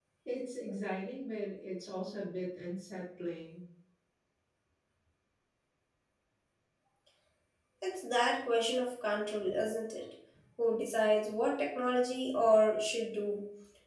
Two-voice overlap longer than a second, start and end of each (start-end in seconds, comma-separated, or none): none